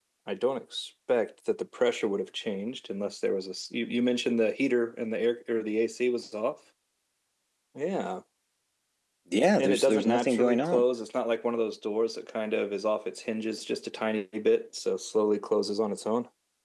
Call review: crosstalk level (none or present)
present